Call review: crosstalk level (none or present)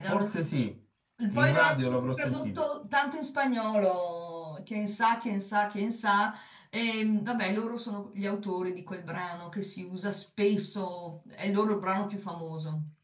present